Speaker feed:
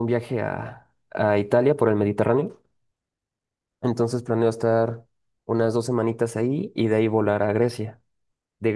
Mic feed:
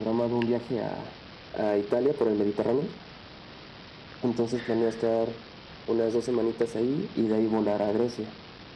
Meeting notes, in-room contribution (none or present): none